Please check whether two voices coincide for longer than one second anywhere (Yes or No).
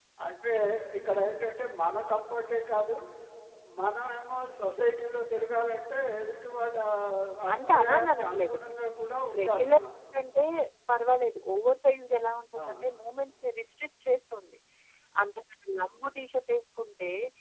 Yes